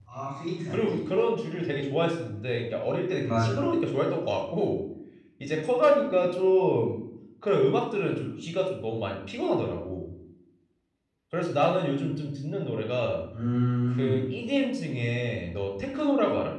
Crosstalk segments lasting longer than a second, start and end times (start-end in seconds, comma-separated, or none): none